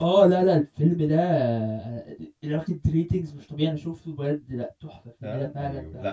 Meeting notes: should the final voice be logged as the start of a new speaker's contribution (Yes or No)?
Yes